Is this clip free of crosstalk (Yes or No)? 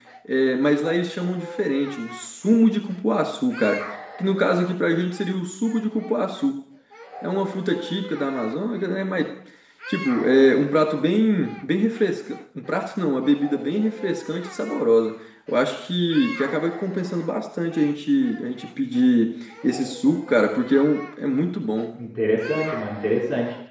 Yes